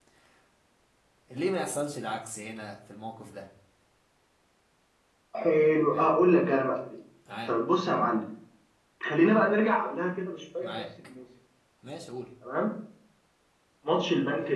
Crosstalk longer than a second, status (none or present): none